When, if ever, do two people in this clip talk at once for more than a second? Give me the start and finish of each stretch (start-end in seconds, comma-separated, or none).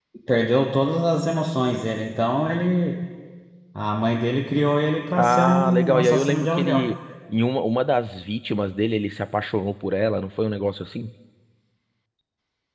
5.1-6.9